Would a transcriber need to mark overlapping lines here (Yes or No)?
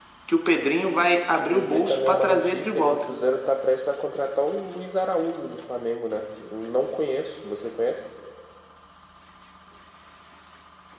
Yes